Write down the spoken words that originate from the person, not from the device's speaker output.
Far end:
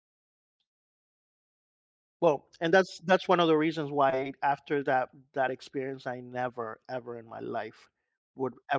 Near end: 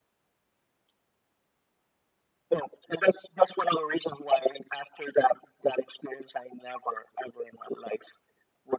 none

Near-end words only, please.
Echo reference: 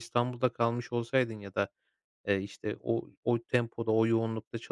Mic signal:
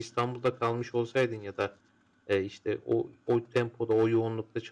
none

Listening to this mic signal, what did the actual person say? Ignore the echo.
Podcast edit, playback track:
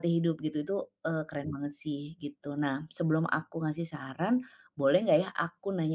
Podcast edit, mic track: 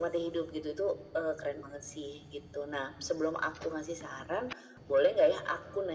none

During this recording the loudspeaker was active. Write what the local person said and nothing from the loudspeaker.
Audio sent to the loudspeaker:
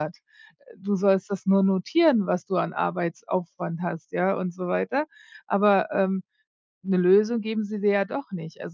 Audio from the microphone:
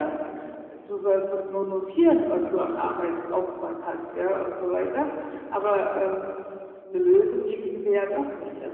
none

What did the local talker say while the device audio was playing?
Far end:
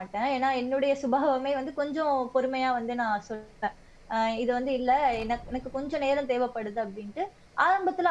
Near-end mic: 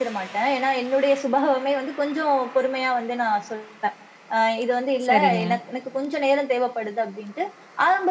சரிங்க.

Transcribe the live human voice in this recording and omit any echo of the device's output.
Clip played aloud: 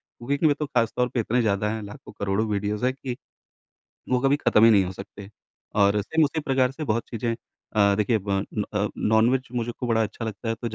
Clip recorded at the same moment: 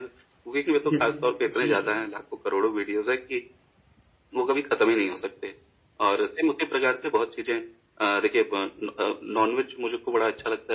बिल्क जी।

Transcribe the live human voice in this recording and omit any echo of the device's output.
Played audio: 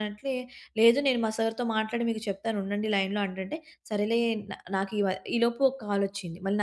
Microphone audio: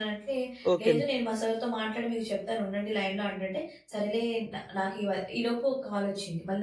ఓకేండి.

